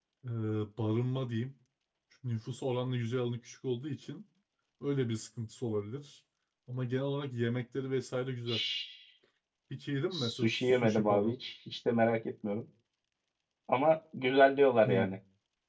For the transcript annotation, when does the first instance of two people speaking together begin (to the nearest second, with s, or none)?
10 s